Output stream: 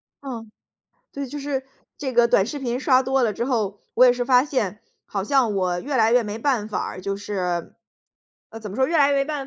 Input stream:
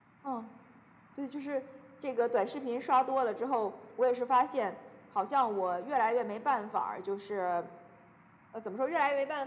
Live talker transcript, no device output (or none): none